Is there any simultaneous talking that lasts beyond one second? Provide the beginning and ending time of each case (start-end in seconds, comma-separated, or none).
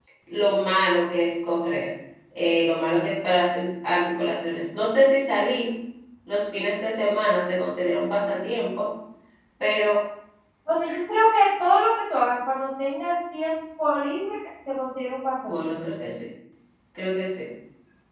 none